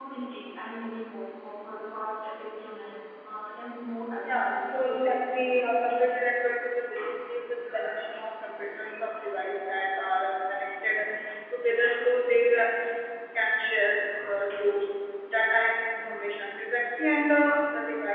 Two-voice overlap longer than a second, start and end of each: 4.2-5.6

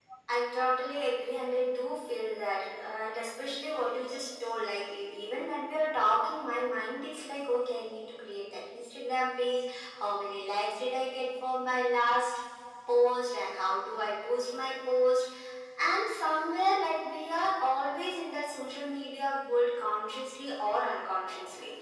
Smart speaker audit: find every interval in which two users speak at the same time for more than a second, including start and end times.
none

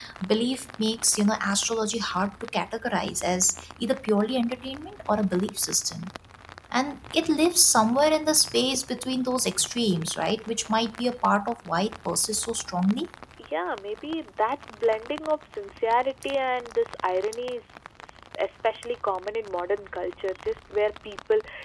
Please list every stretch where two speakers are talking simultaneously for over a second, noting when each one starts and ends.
none

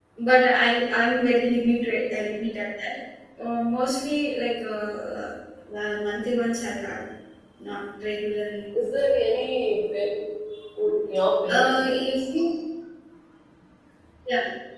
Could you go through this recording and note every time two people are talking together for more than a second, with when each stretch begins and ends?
none

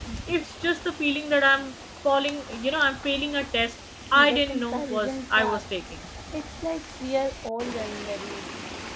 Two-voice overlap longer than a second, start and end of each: 4.1-5.6

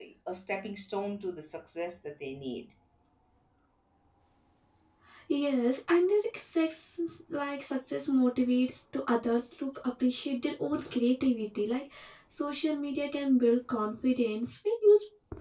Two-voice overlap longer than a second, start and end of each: none

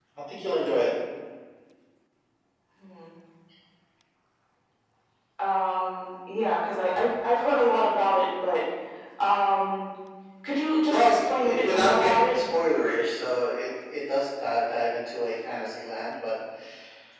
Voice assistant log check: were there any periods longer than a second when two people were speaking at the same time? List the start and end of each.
10.9-12.3

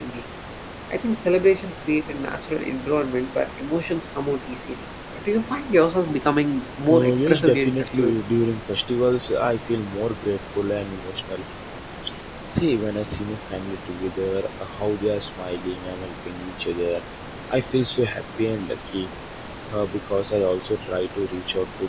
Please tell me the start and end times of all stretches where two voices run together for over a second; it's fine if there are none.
6.9-8.1

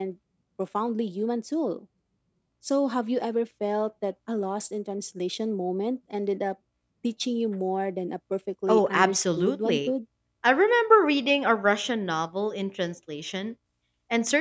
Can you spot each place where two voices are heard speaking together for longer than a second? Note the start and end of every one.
8.7-9.9

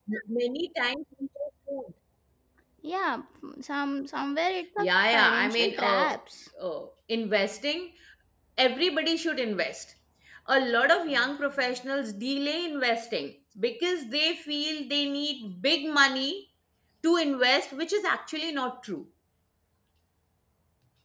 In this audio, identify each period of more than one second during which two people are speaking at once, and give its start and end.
4.8-6.2

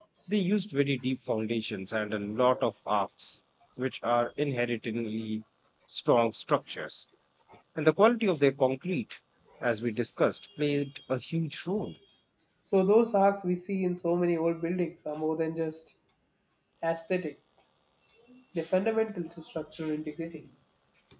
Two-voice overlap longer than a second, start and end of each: none

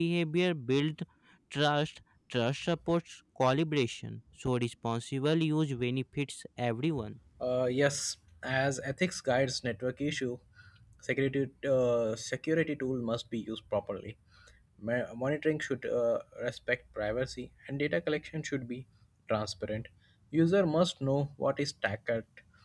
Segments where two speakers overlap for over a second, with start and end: none

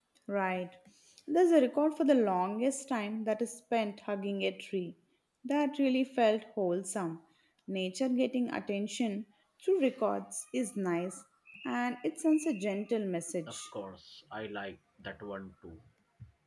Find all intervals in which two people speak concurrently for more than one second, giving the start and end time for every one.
none

